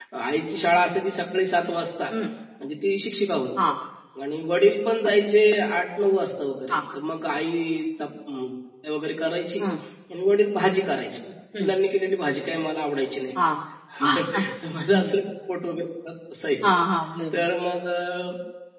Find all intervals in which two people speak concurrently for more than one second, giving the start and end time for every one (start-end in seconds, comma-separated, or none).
none